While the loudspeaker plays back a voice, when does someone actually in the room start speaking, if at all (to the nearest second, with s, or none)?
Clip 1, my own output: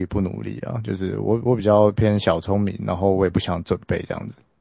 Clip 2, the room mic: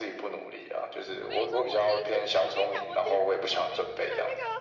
1 s